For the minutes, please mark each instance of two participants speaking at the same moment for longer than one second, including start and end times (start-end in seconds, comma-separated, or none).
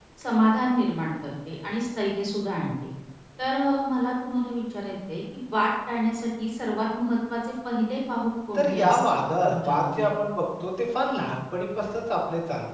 8.5-10.1